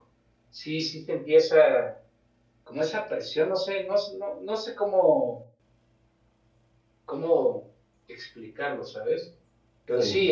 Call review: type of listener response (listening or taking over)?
listening